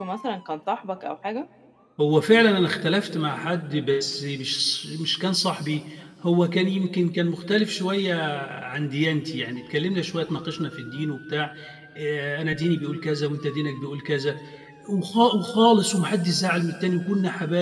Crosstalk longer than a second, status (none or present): none